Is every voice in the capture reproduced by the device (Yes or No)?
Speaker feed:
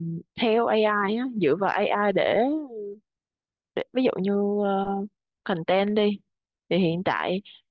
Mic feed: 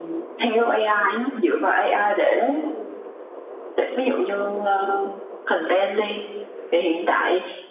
Yes